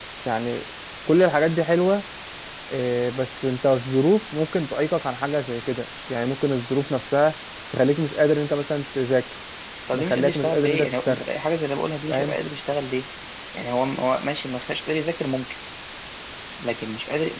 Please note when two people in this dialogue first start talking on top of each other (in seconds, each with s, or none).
9.9 s